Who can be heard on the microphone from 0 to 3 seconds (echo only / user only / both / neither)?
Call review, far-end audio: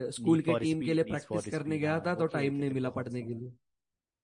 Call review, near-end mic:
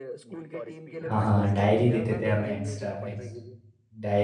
both